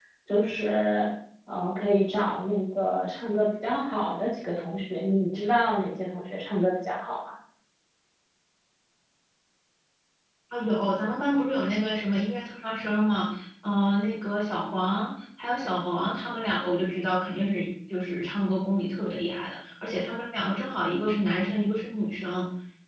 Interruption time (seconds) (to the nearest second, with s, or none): none